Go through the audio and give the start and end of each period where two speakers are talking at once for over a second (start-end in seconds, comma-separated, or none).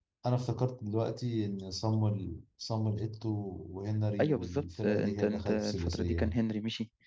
4.2-6.4